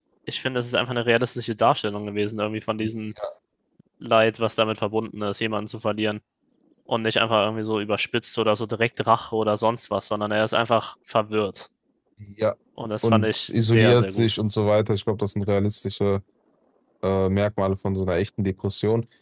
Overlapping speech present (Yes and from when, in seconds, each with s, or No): Yes, from 13.0 s